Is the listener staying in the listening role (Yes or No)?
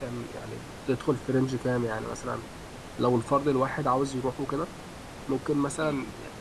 Yes